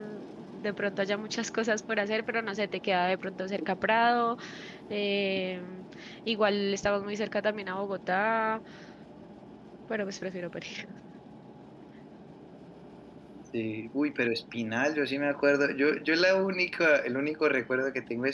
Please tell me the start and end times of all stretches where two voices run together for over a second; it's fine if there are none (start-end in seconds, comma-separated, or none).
none